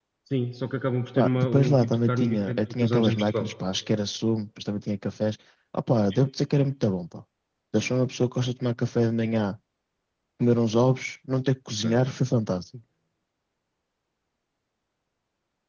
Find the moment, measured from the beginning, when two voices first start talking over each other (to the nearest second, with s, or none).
1 s